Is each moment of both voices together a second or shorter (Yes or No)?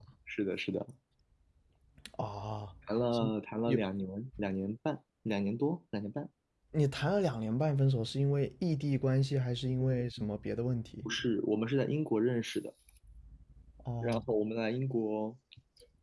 Yes